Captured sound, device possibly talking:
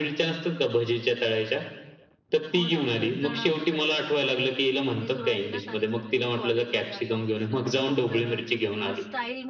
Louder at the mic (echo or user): echo